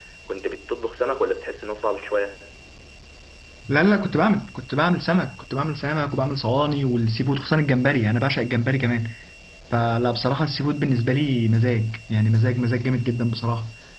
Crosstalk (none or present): none